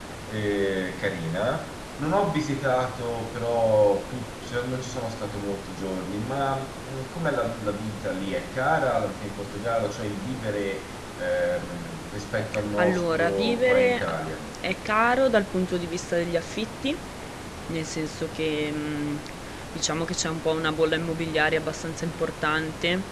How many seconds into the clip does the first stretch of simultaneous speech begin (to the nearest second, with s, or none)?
13 s